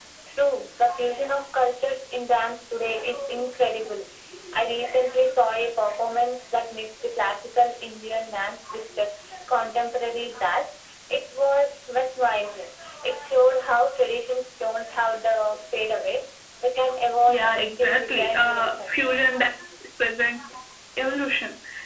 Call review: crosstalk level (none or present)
present